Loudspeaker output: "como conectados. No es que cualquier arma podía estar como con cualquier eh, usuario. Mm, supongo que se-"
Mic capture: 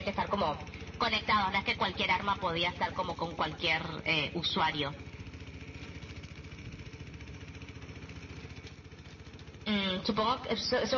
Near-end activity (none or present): none